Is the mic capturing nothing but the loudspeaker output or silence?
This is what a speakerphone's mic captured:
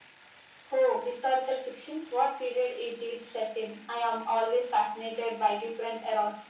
Yes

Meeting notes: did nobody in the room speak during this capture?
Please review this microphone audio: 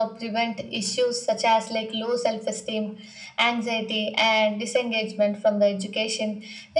Yes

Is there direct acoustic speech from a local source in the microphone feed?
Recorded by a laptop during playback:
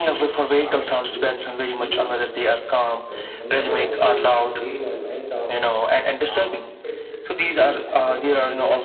Yes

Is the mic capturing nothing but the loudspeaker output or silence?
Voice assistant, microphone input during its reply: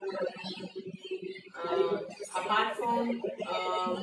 No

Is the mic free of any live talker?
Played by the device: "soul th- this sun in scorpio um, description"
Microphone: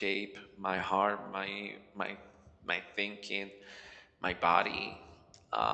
No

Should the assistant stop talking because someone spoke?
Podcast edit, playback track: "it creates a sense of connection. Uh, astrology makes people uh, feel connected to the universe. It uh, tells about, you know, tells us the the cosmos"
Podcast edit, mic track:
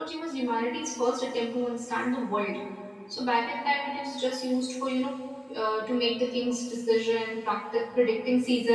Yes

